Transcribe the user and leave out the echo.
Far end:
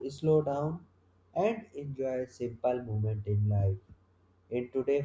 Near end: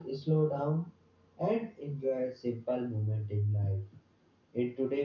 none

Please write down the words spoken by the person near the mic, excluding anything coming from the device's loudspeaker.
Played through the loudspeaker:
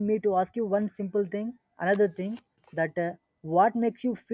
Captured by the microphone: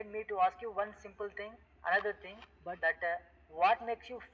but

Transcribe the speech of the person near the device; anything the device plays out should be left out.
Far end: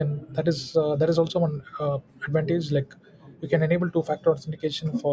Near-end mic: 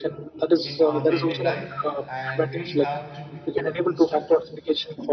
in our daily life. And we have to be. Hello, mister.

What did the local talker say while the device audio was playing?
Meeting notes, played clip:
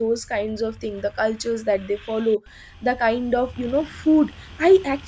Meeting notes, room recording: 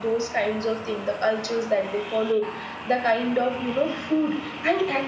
none

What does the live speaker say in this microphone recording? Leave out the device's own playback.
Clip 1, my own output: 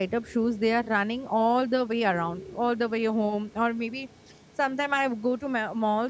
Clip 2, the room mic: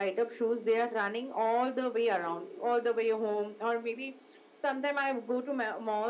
none

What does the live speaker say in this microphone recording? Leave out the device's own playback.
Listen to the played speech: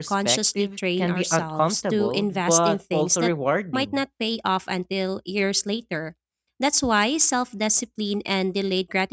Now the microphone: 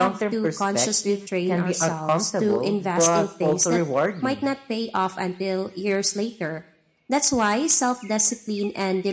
none

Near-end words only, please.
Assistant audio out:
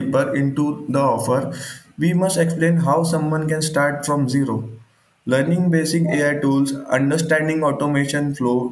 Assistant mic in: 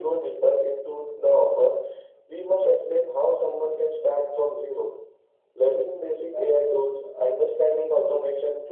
none

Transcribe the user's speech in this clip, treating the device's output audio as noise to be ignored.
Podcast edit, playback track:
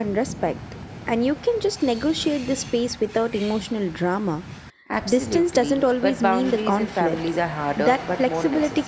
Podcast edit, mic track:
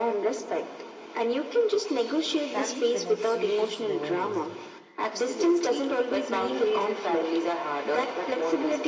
Family connects you to slower wisdom.

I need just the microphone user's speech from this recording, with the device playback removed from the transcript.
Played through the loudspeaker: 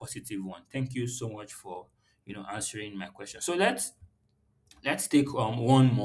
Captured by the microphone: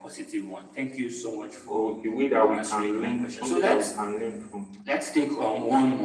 or a way that we can learn, something that we can learn from.

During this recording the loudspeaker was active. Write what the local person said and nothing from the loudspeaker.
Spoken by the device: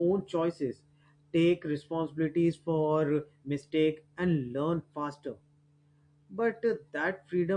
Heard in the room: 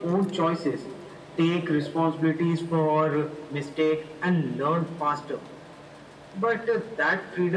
none

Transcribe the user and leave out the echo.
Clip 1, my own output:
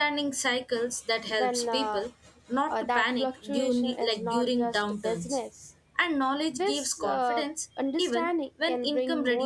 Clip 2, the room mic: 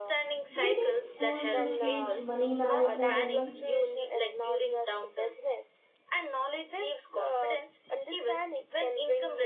Do you think schools should teach money management early?

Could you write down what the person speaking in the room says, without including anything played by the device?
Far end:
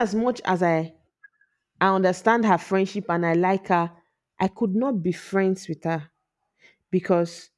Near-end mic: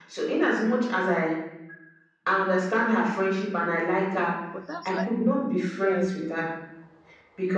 But that's like, yeah, I do.

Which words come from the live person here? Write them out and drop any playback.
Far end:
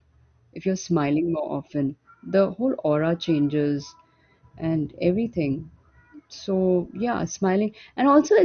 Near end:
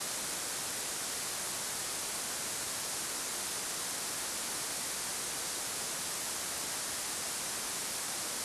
none

